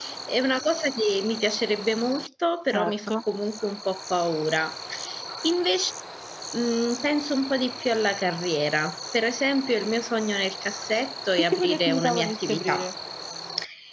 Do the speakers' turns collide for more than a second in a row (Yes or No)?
Yes